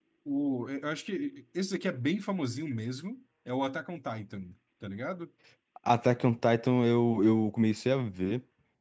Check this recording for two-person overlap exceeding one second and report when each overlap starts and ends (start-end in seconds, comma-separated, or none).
none